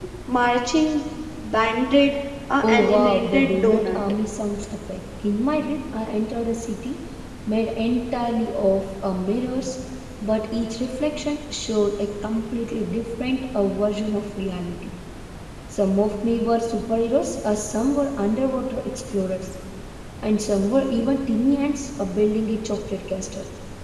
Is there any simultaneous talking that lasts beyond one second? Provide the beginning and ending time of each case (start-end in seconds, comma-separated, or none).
2.6-4.0